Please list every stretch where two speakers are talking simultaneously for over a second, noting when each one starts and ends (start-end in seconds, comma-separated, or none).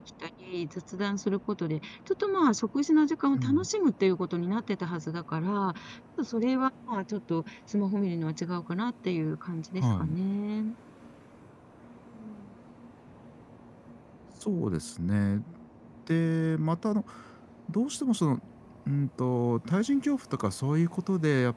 none